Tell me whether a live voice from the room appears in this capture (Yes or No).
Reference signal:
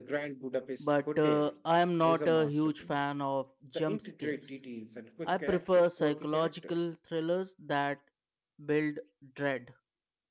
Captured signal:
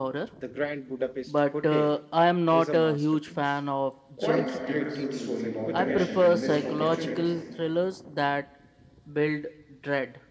Yes